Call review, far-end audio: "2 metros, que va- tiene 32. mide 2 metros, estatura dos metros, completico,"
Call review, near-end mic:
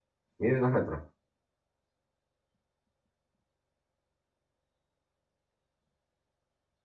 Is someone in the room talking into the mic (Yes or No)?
Yes